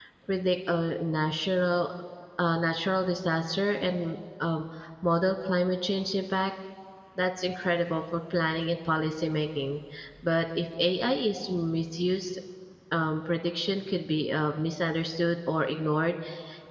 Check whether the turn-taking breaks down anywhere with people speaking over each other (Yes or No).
No